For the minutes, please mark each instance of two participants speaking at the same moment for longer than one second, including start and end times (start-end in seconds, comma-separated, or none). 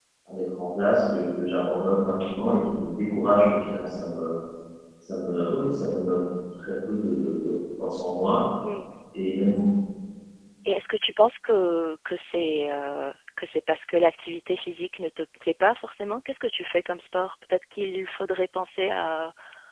none